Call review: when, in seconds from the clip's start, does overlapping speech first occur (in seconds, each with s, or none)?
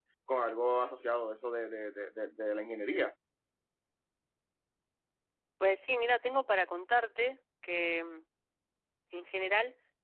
none